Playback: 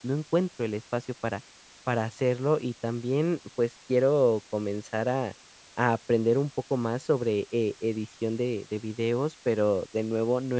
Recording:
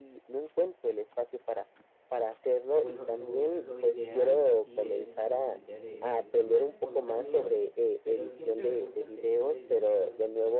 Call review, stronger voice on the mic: echo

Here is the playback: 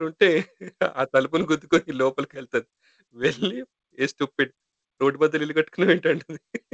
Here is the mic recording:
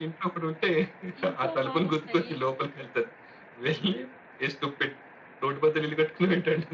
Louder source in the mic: echo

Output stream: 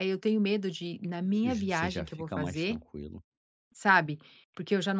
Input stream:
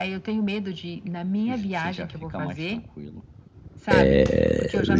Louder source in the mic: user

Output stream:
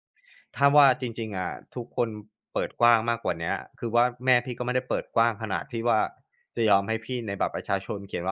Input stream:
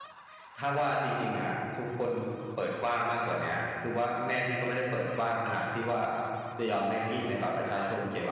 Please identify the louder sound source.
echo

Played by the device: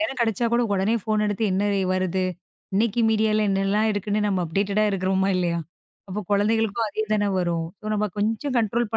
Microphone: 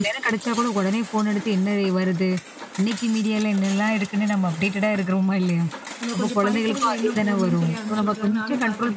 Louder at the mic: echo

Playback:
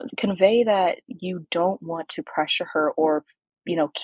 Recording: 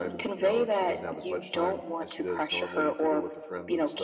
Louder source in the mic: echo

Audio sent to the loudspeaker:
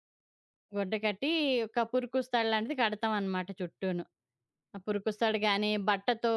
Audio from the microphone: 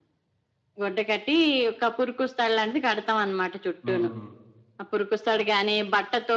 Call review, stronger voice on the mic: echo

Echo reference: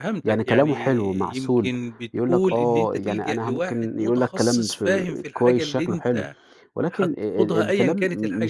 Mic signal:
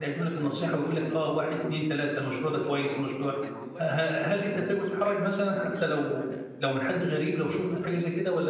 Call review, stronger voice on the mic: user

